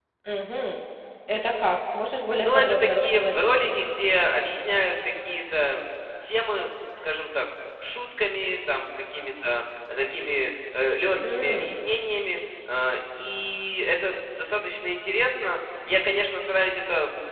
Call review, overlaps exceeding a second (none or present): present